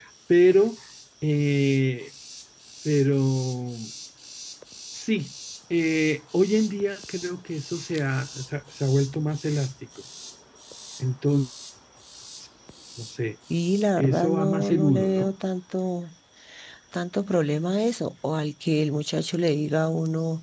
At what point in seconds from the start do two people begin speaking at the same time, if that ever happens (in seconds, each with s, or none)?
14.0 s